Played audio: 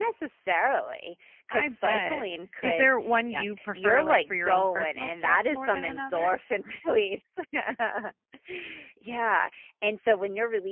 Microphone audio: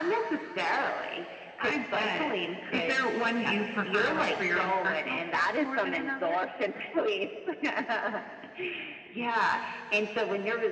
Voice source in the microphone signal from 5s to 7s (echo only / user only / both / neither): echo only